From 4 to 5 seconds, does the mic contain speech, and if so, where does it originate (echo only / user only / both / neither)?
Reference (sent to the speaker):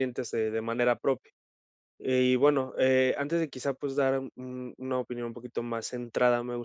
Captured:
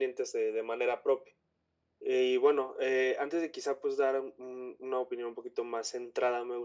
echo only